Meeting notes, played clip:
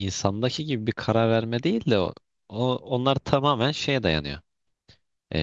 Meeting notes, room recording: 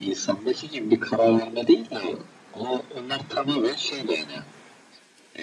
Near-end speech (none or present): none